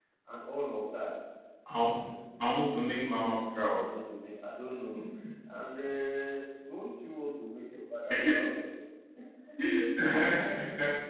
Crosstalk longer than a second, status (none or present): none